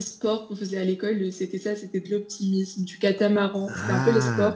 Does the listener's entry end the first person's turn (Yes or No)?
No